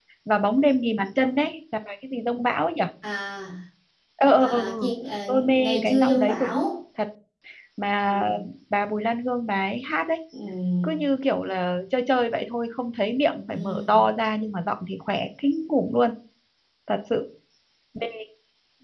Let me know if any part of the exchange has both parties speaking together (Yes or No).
Yes